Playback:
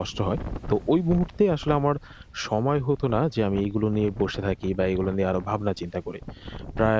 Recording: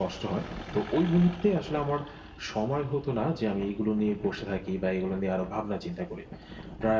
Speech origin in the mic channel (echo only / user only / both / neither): echo only